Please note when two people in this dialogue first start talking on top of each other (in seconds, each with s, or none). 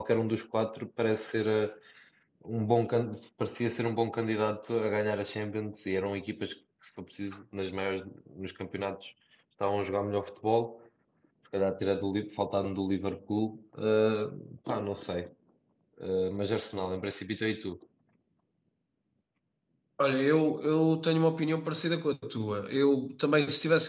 none